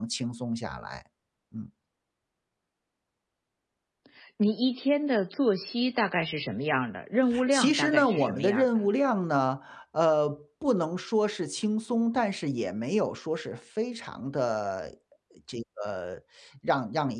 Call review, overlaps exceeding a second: present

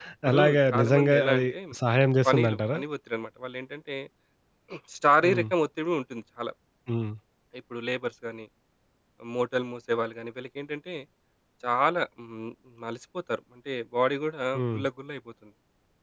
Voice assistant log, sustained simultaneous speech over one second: present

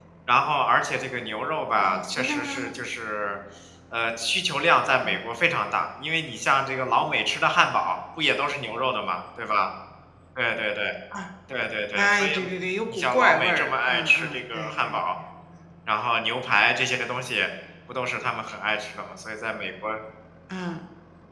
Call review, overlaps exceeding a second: present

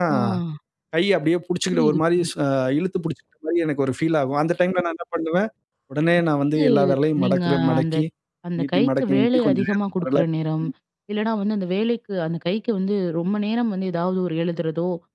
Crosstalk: present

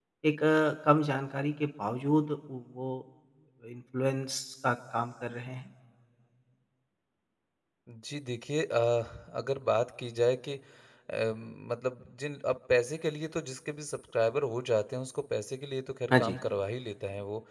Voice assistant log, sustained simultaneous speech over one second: none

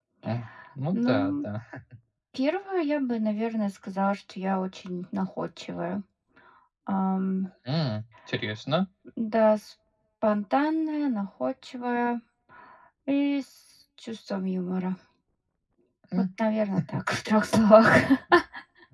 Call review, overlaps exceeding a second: none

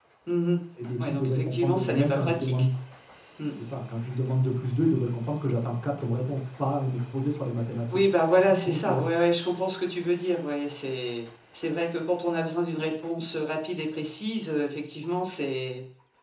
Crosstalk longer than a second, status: present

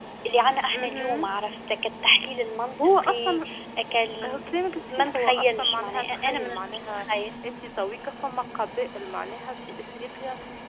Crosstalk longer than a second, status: present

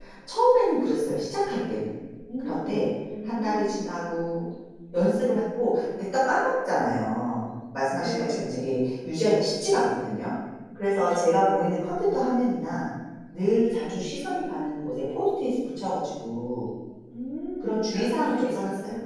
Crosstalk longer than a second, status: present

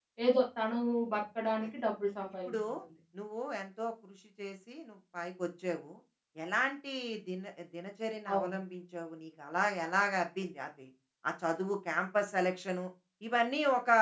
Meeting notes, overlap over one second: none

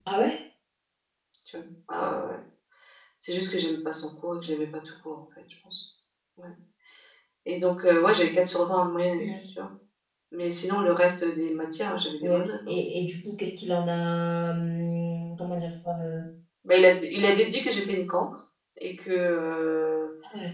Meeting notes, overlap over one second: none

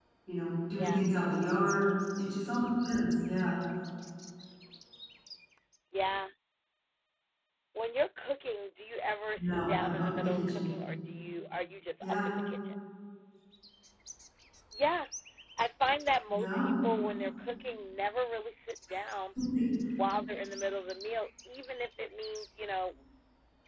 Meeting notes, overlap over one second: present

